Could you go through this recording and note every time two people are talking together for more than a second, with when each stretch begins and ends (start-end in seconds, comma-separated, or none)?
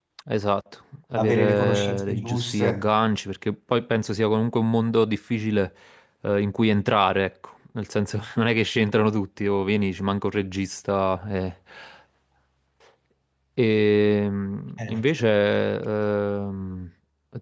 1.2-2.8